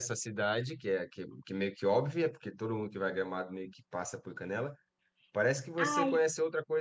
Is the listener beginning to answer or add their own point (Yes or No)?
No